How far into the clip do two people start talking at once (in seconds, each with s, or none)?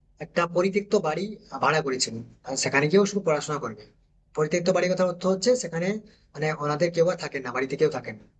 none